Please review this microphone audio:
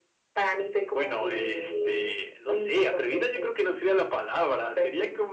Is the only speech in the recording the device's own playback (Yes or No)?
Yes